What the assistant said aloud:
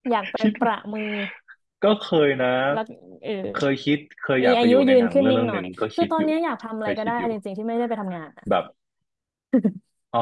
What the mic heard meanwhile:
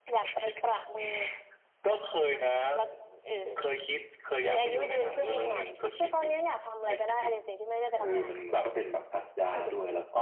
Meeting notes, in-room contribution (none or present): present